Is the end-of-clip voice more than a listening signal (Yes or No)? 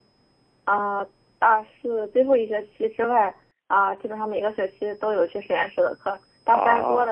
No